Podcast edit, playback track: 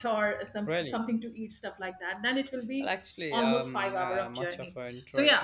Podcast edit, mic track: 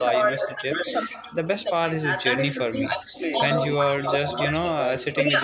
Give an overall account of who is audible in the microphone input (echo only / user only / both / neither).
both